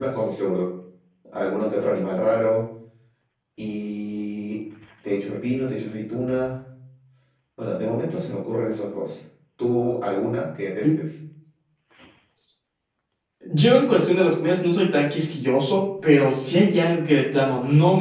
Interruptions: none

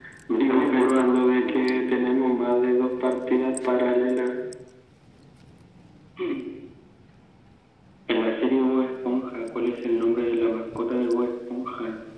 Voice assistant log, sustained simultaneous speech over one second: present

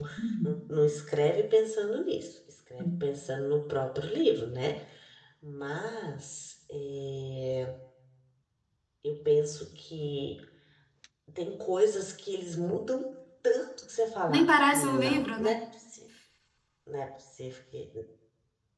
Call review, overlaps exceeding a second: present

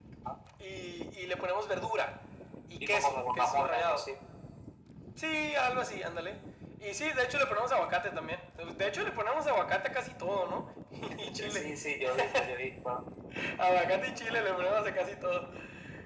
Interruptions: present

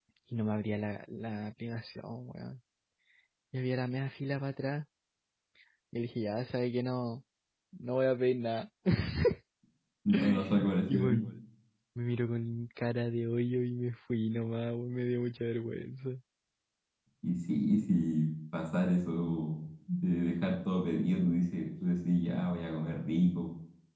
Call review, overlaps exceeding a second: none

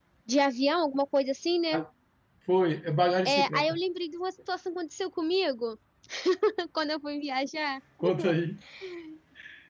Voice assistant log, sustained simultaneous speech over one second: none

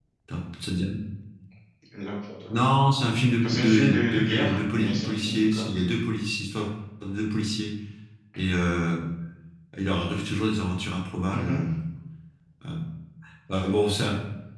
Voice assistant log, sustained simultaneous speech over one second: present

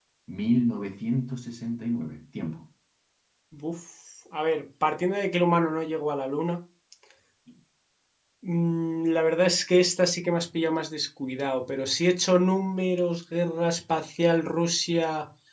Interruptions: none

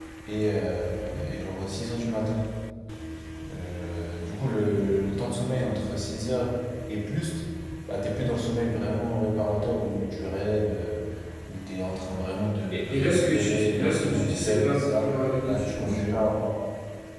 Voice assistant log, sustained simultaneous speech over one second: present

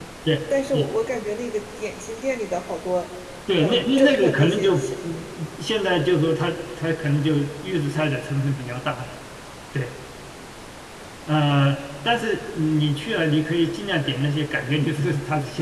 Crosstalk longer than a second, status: present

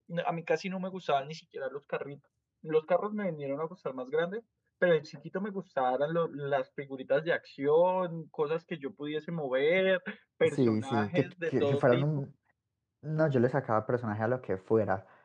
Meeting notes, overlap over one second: present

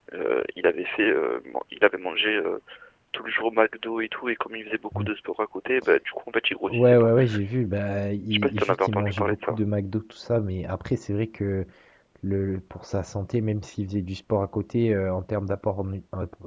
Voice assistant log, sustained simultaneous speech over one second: present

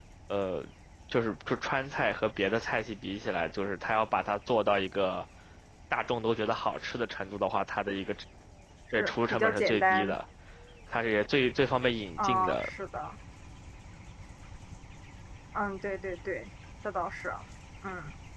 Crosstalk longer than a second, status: present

